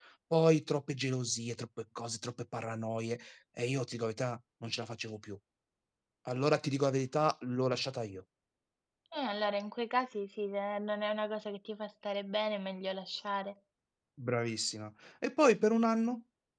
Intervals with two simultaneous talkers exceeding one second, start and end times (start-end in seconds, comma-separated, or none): none